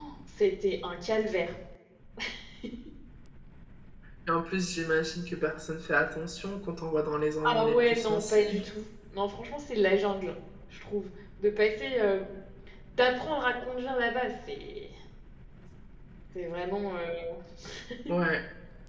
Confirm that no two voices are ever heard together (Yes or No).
No